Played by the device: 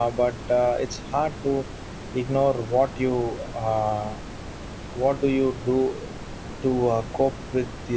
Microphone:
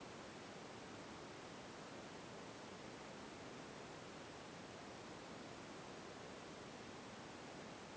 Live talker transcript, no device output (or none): none